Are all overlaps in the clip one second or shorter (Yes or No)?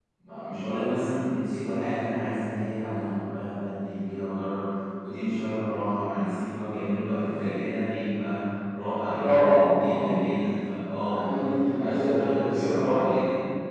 No